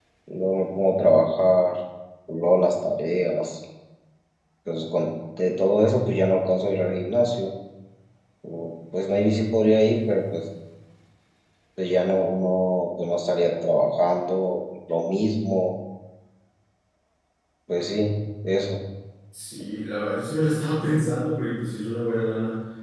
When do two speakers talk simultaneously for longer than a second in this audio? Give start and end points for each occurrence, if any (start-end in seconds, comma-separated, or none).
none